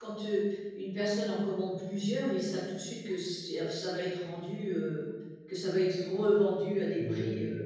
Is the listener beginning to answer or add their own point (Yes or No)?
Yes